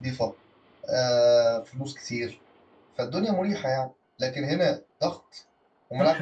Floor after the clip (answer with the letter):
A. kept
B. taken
B